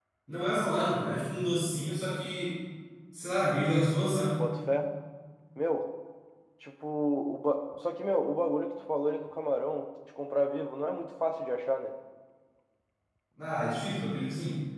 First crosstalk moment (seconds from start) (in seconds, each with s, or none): none